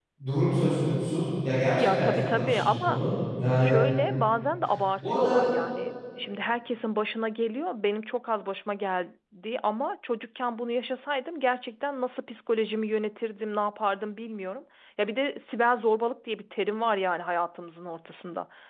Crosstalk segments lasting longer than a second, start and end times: 1.8-3.0

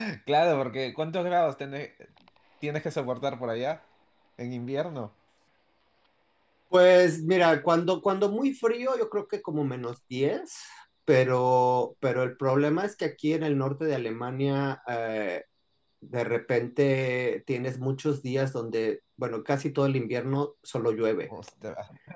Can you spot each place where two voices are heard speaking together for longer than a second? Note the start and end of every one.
none

